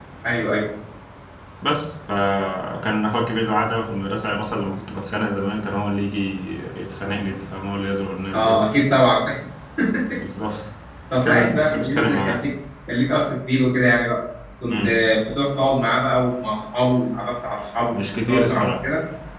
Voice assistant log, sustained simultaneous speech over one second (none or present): present